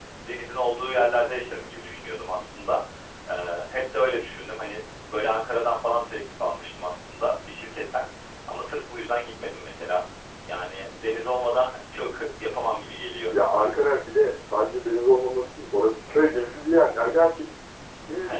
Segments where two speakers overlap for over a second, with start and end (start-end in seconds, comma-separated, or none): none